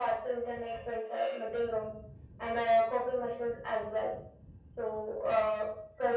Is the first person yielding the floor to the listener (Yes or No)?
No